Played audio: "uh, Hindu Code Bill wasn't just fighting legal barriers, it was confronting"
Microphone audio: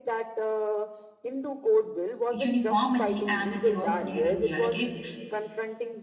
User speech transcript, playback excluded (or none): uniformity and the diversity in india like if